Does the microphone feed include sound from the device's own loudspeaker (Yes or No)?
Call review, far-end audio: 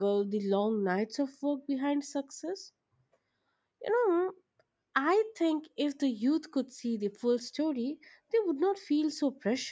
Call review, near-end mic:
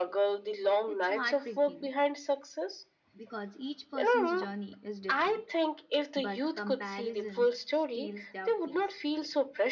Yes